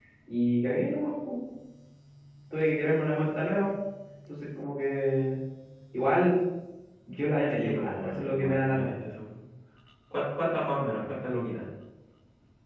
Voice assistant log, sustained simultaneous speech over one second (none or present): present